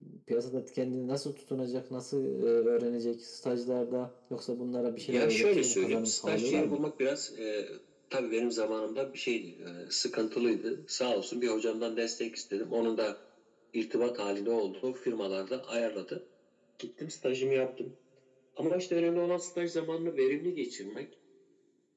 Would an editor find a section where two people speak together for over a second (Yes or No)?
Yes